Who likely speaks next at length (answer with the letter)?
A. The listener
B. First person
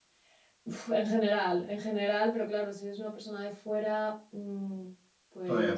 B